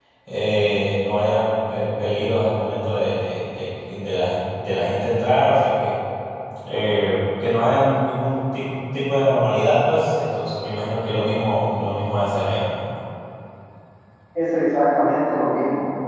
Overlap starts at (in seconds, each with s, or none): none